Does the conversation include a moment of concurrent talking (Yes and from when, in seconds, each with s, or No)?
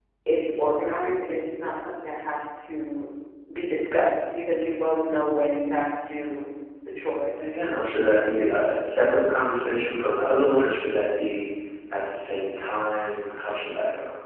No